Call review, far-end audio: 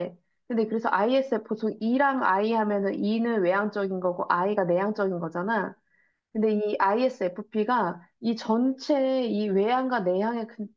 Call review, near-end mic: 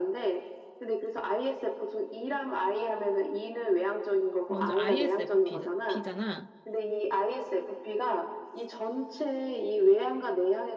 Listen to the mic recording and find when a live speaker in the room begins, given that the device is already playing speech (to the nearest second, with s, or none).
4 s